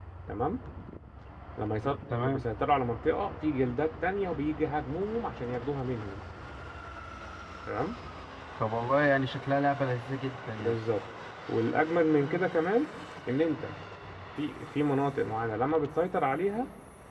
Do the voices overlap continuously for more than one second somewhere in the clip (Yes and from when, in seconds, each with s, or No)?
No